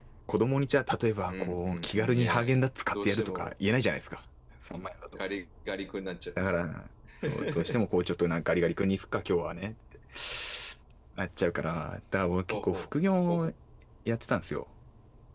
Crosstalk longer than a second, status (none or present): present